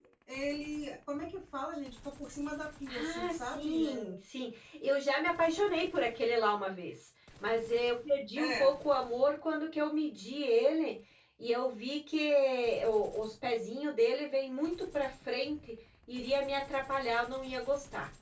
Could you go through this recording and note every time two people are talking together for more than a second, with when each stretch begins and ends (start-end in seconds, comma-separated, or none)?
2.9-4.1